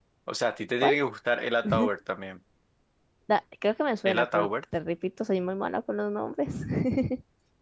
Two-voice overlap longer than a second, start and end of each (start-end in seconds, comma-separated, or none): none